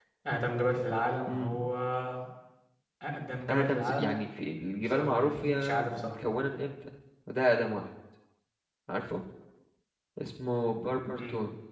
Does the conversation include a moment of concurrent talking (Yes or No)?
Yes